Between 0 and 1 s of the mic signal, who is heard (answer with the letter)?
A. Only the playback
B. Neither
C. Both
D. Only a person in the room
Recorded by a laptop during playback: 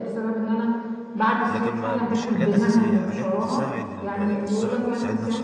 A